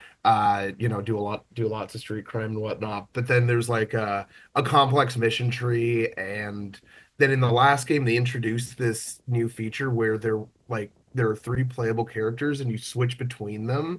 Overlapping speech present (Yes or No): No